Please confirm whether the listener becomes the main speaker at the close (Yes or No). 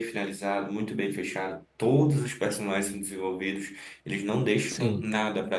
No